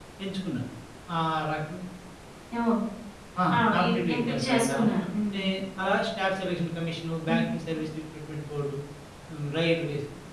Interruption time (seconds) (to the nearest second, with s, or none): 4 s